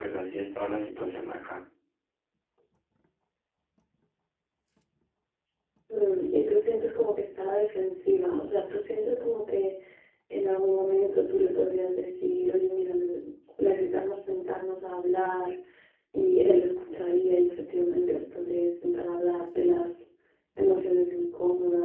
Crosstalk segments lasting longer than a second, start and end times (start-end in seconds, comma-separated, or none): none